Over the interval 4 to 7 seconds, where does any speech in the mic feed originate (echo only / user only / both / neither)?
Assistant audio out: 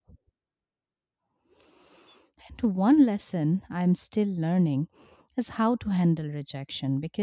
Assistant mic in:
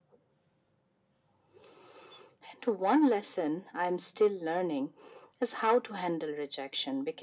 echo only